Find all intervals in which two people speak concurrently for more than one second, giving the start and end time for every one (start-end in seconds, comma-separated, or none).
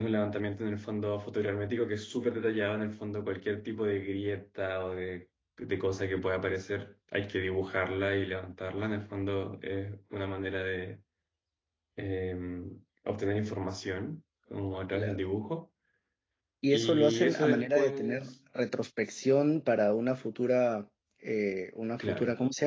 16.7-18.3